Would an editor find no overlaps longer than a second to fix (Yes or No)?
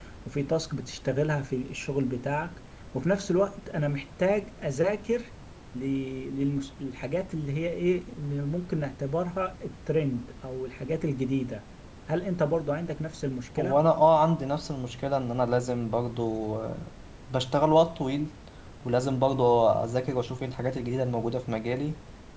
Yes